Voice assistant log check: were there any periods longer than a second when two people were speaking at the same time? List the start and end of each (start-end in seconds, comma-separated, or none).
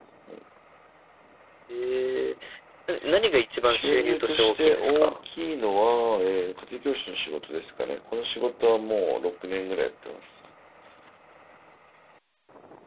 3.6-5.2